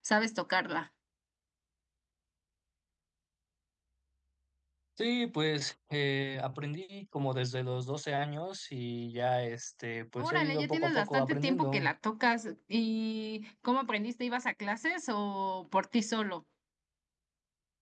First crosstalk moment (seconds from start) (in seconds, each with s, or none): 10.2 s